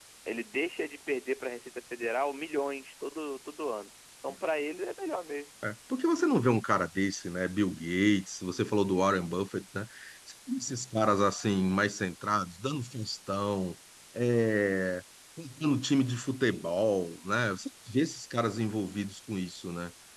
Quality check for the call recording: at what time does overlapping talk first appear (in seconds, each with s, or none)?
none